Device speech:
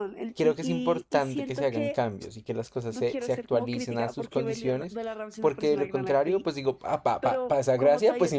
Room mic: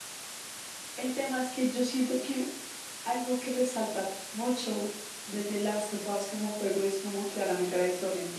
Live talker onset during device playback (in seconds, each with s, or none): 1.0 s